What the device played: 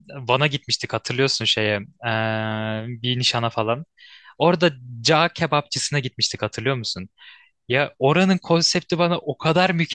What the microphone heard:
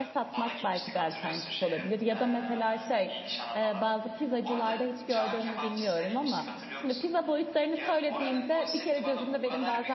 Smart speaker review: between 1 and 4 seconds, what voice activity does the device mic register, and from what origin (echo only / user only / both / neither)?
both